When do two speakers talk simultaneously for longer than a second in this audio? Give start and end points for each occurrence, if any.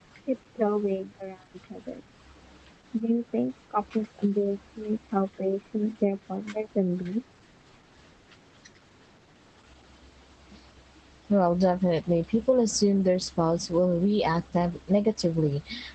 none

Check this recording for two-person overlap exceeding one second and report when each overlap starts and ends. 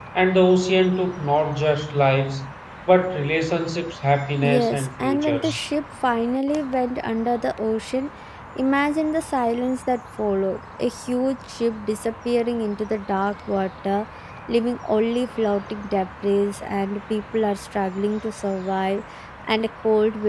4.4-5.6

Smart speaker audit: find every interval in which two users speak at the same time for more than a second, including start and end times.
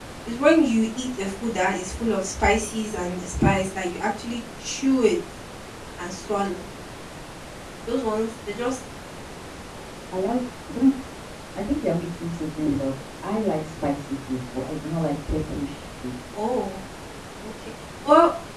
none

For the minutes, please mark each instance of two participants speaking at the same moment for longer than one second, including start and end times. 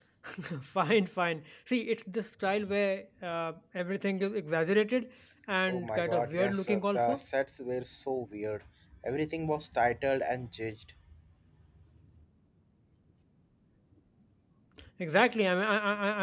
5.7-7.2

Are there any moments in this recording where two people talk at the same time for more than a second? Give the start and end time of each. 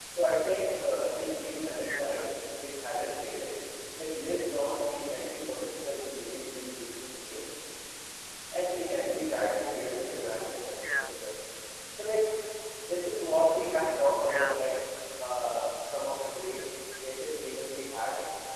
none

